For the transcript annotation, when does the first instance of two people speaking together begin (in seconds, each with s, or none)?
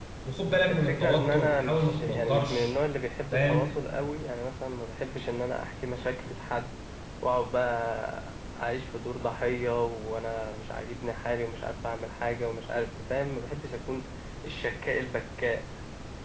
0.7 s